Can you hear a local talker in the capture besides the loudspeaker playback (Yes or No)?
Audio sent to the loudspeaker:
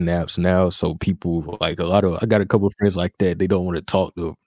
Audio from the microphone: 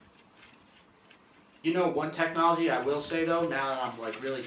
Yes